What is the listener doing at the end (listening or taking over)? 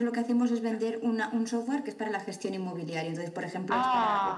listening